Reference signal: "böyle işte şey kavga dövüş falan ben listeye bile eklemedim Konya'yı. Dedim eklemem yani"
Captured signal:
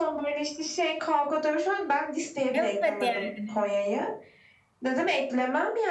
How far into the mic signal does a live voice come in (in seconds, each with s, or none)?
2.5 s